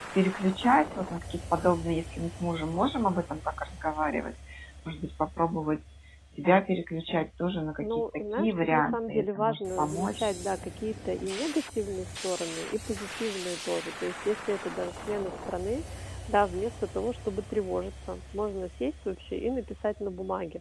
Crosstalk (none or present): present